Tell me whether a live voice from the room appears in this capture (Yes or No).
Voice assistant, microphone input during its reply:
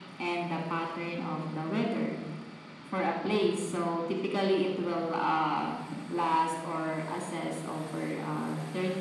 No